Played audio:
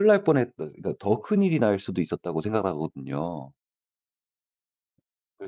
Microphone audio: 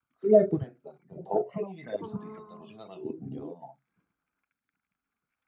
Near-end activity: present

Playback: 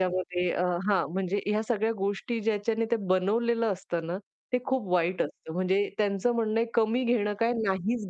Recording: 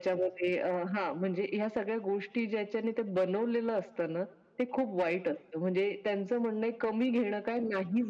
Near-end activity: none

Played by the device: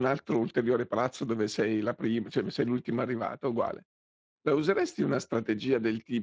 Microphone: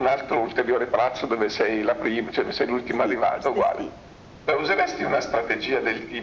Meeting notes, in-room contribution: present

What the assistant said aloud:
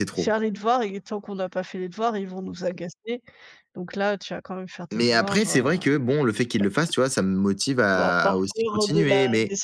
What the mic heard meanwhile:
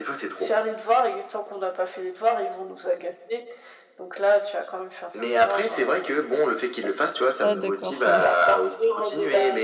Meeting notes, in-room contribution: present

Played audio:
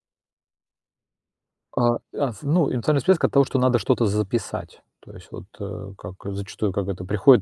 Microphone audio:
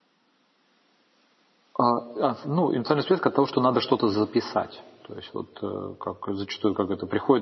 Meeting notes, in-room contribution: none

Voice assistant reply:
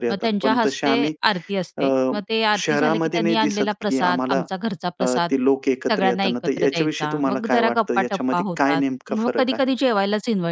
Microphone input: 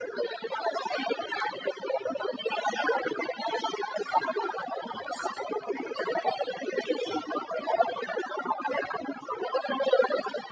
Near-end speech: none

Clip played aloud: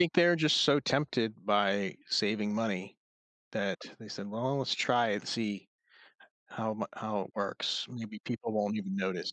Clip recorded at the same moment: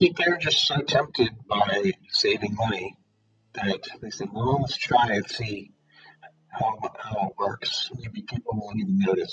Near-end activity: none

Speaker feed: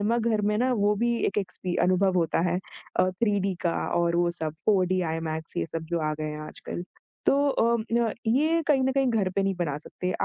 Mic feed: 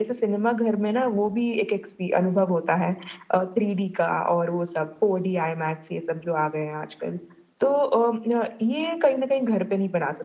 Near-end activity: none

